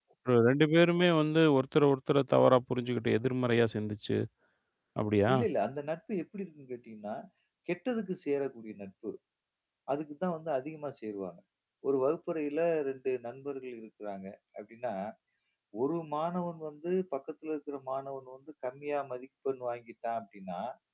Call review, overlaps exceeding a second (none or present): none